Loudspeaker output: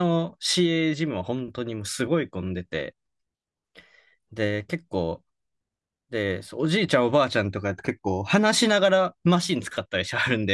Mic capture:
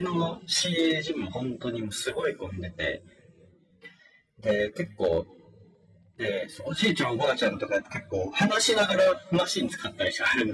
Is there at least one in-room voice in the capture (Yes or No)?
No